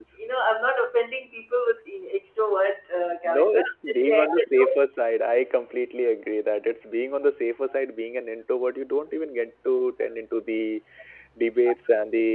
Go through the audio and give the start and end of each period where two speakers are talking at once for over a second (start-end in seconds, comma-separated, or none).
3.2-4.8